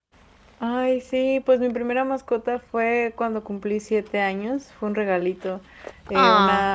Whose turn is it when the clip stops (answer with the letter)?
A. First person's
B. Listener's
A